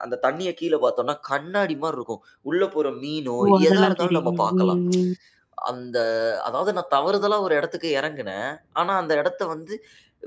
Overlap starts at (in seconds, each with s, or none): 3.4 s